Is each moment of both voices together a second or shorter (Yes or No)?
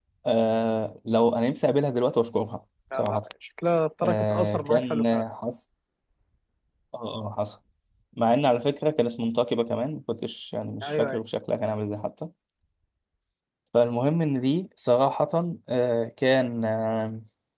No